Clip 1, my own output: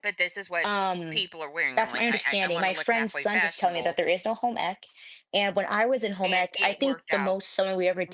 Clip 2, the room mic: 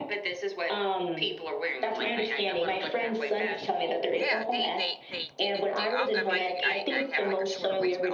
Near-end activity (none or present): present